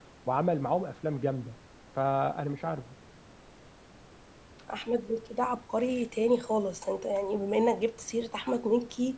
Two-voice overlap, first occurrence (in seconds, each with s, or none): none